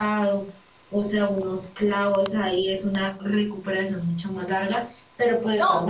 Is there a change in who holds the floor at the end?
No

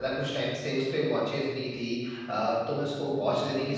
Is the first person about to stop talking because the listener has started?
No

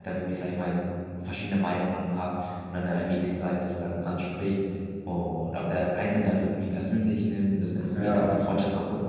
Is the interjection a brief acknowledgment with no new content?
Yes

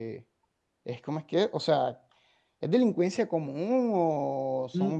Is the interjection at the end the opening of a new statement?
Yes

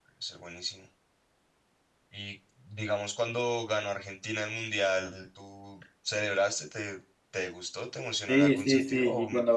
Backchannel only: No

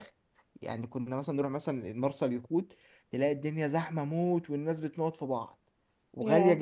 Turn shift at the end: No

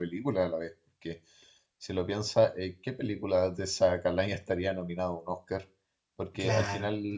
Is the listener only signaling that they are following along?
Yes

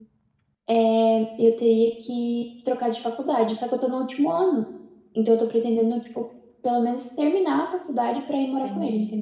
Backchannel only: No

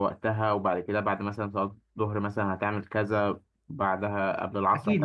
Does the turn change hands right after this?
Yes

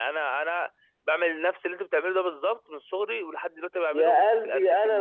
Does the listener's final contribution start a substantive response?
Yes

